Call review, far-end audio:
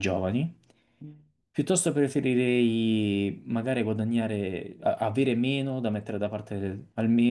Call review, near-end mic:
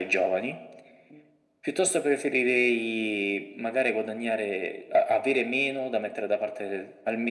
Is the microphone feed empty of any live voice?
Yes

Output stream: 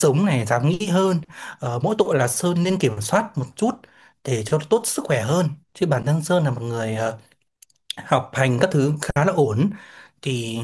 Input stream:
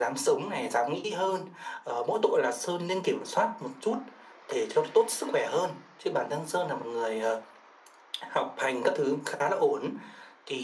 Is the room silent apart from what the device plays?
Yes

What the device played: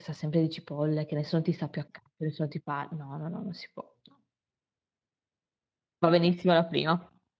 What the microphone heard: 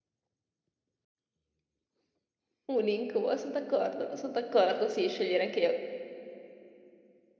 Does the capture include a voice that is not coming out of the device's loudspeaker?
Yes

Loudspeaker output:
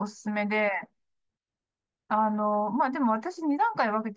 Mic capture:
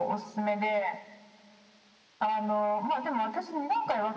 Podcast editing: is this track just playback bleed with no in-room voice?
Yes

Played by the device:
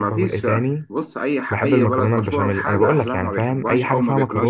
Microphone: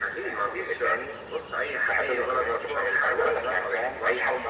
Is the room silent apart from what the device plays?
Yes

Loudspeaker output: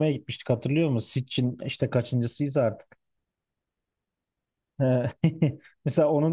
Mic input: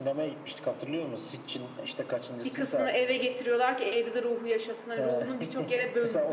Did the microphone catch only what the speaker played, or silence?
No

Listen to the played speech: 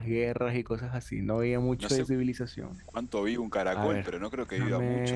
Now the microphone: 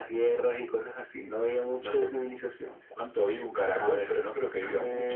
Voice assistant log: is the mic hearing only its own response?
Yes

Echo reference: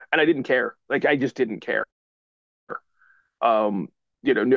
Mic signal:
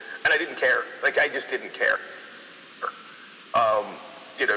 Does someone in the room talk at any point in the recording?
No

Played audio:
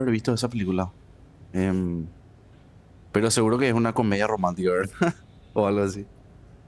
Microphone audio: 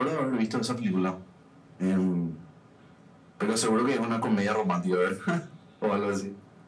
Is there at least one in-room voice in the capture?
No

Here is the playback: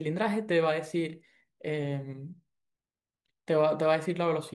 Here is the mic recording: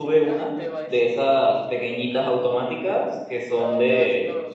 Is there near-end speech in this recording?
Yes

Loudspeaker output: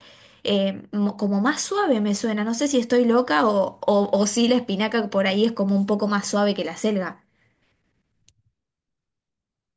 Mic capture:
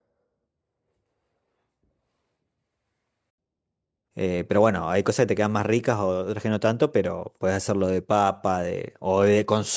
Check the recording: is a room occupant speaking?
Yes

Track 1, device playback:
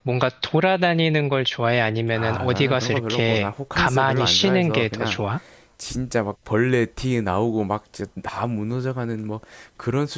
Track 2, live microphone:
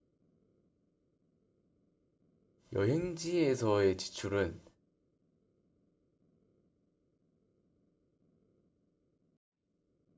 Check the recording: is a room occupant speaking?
Yes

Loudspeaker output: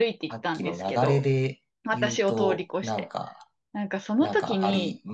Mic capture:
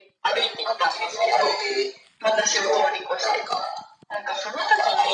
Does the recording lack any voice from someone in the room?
Yes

